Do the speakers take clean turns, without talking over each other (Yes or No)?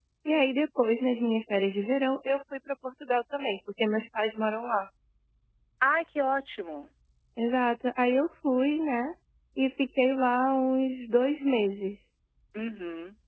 Yes